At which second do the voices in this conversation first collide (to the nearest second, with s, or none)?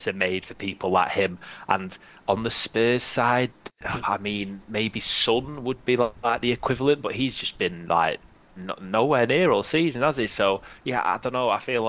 none